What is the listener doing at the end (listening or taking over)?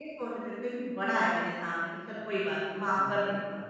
taking over